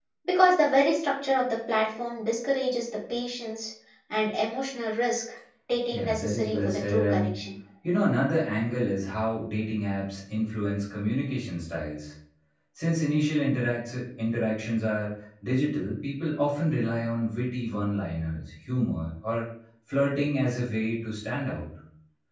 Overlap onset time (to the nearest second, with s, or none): 6 s